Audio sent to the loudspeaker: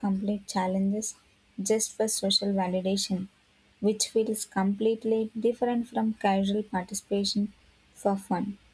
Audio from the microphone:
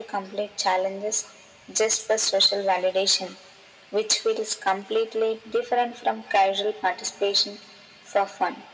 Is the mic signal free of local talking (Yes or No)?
Yes